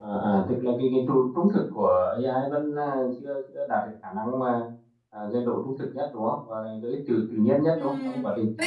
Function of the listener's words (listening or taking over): taking over